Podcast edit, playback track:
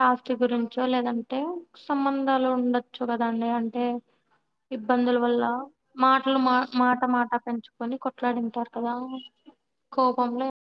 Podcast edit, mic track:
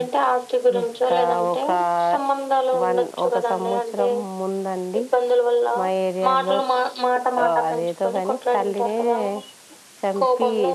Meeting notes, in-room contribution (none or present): present